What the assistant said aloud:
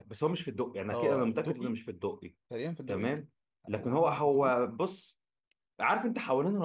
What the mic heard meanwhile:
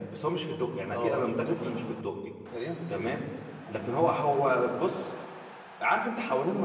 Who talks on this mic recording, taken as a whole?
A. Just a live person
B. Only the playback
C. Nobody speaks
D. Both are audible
B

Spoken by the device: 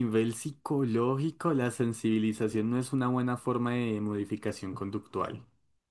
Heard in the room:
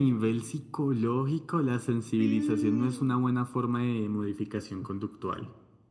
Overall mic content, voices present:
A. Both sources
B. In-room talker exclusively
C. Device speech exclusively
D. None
A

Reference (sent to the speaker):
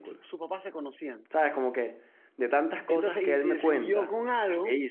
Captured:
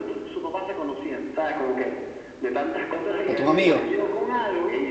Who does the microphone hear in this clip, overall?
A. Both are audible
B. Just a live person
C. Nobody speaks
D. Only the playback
A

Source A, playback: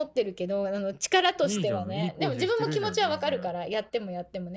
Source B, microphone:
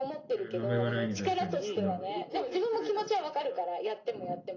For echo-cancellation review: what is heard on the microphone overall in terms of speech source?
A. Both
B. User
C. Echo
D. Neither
A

